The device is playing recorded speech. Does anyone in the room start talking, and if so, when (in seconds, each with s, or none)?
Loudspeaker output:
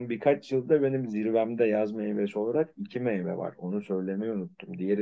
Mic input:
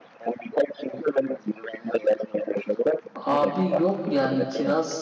3.1 s